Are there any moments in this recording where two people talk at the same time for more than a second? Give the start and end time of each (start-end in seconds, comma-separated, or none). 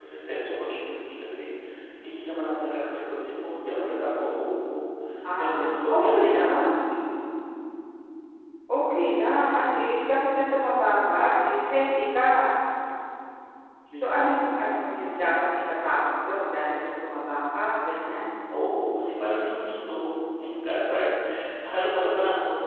5.4-6.8